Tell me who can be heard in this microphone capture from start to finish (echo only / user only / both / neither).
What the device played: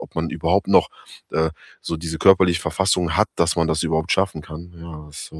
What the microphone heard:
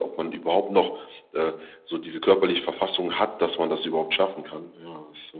echo only